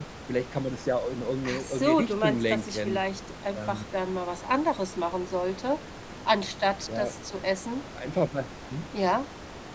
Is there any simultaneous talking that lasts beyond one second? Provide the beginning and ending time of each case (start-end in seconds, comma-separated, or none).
1.4-3.0